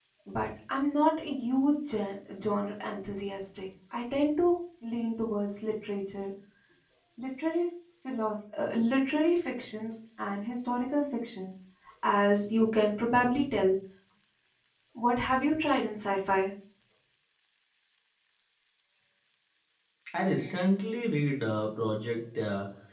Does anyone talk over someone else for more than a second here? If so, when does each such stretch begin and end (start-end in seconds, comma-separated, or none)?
none